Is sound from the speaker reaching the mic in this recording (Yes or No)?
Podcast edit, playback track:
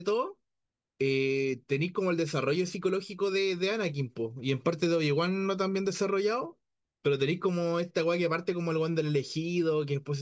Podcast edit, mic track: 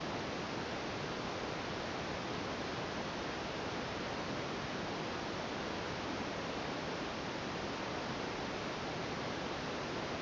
No